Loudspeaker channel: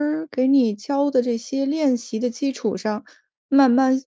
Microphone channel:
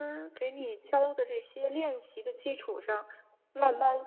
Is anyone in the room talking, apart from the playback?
No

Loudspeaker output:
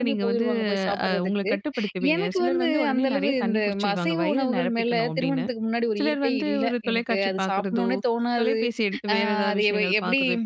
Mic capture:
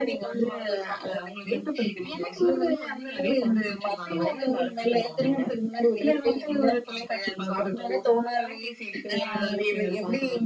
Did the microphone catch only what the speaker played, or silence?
Yes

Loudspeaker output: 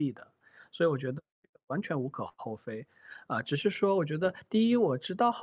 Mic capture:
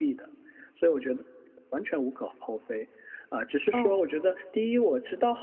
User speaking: Yes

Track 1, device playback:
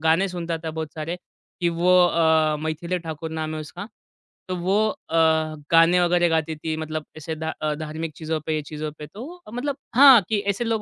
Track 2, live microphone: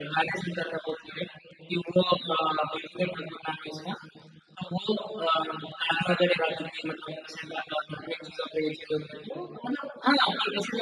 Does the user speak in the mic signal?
No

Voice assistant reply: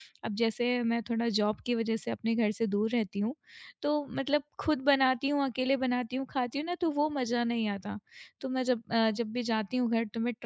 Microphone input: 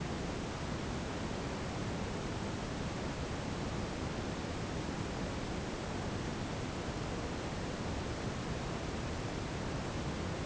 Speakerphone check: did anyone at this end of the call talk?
No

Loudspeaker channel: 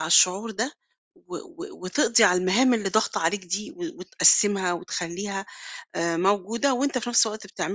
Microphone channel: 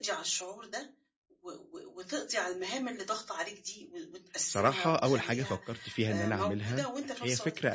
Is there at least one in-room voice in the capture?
Yes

